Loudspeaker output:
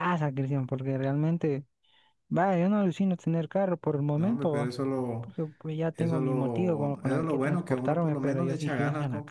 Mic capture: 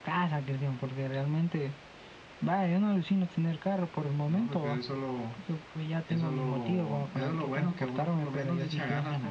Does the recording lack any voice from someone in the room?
Yes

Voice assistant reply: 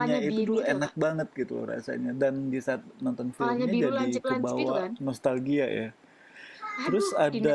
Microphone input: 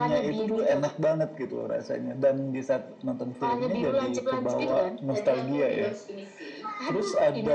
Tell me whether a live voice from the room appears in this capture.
Yes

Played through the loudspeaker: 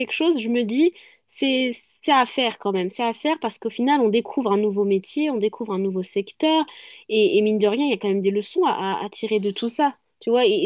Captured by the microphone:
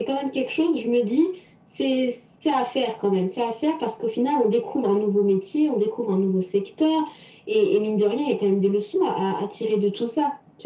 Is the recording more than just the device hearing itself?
No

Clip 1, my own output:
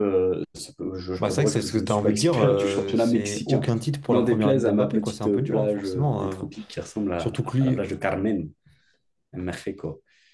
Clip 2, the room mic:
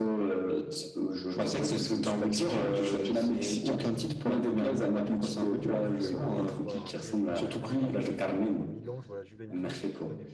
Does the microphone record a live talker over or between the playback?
Yes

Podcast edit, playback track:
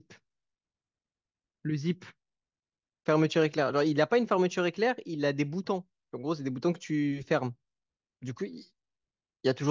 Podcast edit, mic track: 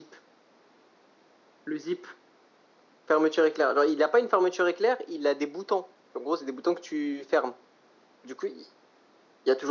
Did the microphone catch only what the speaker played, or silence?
Yes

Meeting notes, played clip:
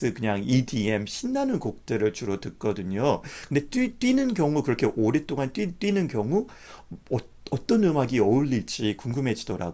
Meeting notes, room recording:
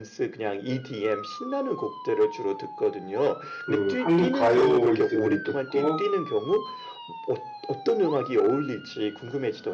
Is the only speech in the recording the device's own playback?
No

